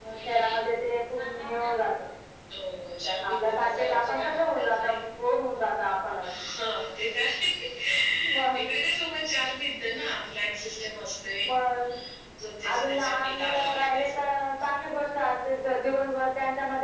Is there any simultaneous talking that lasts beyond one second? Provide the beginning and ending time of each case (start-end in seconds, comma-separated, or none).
3.2-5.0, 12.7-14.1